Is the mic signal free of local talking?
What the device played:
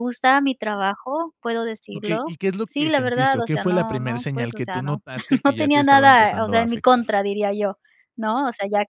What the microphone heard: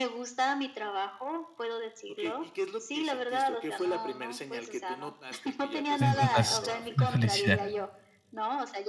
No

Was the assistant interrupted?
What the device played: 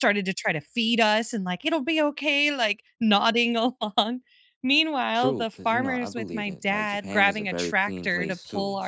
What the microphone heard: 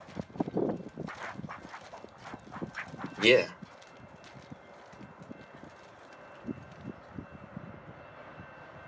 Yes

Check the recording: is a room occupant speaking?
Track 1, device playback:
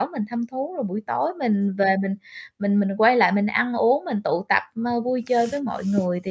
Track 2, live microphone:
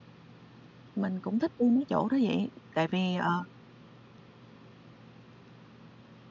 Yes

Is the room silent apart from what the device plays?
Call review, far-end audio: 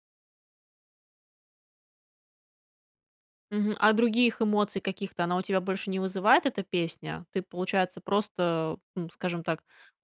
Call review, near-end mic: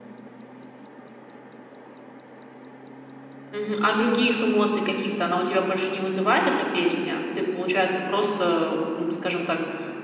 Yes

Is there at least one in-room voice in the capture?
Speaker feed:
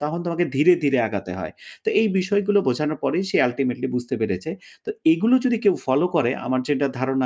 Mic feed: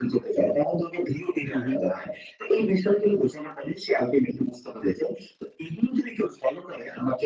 Yes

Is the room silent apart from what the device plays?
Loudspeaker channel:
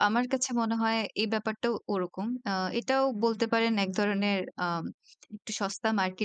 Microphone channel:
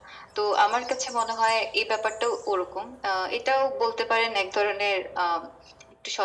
Yes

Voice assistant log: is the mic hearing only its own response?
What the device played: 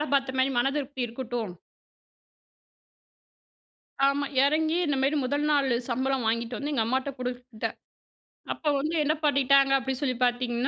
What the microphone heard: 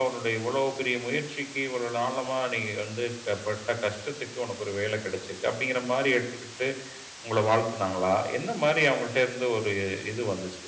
No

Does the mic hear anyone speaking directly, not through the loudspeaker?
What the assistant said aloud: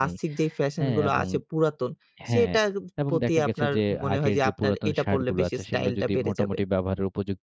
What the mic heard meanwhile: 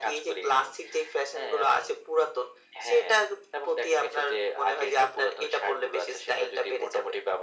No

